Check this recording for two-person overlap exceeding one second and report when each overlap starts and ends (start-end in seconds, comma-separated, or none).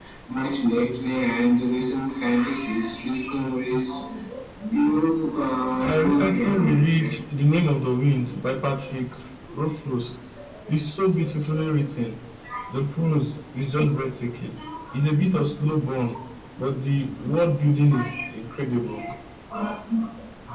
5.8-7.1